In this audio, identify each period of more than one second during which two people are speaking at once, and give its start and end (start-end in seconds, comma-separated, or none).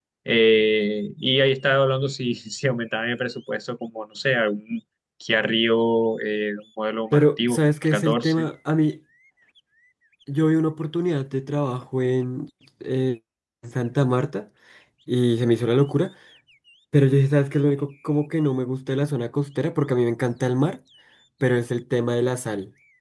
7.1-8.5